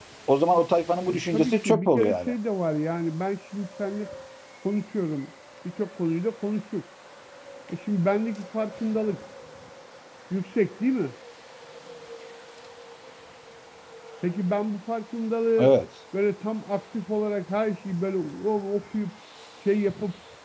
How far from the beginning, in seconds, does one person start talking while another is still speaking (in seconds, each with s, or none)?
1.1 s